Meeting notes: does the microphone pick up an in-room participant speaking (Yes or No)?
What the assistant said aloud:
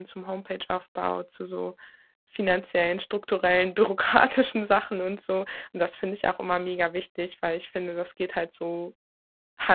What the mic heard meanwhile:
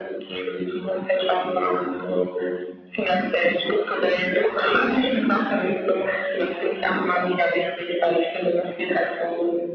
No